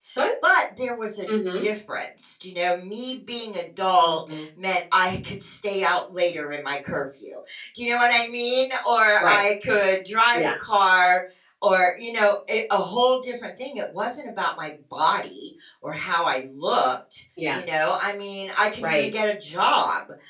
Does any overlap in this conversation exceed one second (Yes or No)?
No